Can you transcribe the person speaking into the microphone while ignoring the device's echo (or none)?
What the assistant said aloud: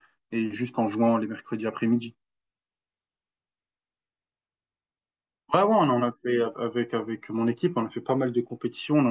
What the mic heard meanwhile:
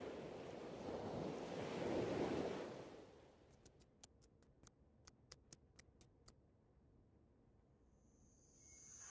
none